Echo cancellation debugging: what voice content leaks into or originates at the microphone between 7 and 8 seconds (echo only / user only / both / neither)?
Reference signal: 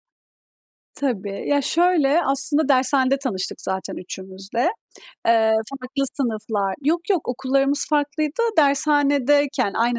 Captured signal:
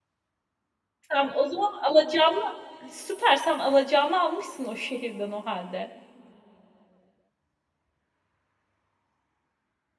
neither